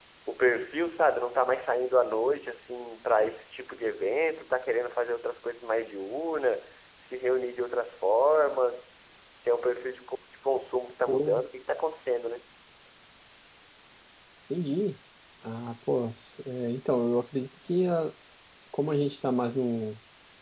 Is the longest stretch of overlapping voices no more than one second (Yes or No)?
Yes